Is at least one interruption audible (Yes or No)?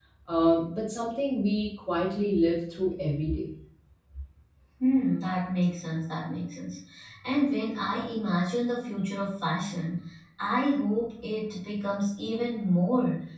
No